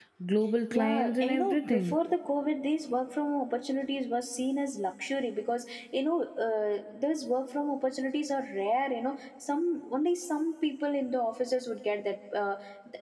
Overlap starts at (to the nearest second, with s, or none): 1 s